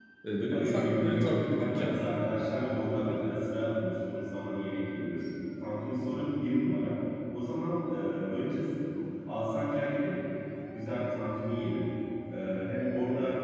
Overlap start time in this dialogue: 1 s

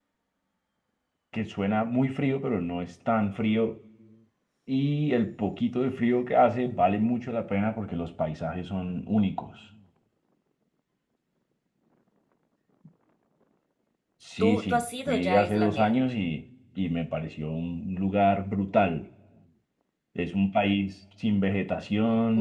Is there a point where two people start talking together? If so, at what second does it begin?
14 s

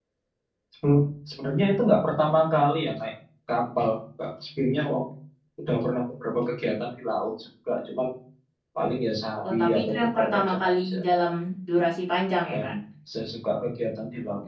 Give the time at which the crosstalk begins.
9 s

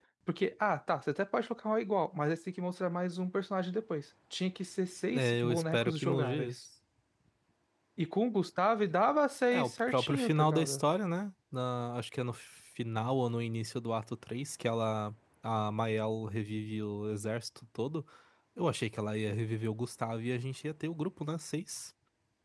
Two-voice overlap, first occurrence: 5 s

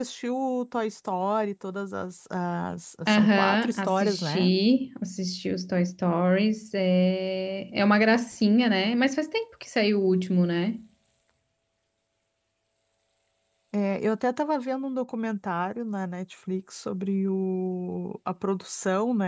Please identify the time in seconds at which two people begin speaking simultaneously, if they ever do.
3 s

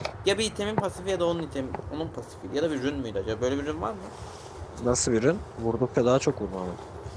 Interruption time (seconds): none

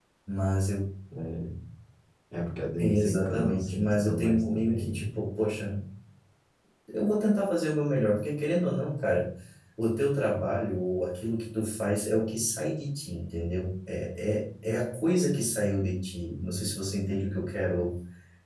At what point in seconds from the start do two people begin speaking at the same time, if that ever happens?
3 s

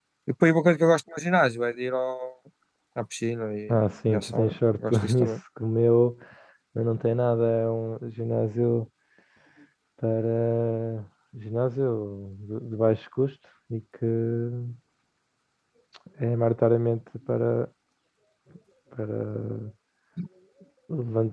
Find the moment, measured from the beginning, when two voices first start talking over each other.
4 s

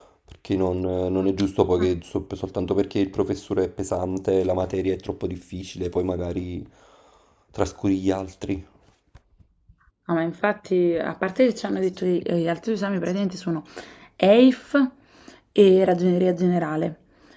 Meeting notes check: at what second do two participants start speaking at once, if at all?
none

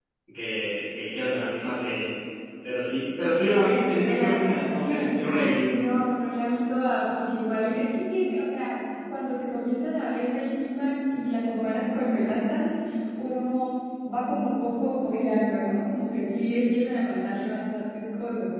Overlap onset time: 4 s

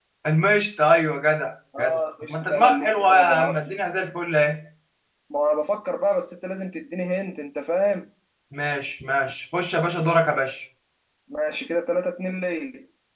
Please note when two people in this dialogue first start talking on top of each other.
2 s

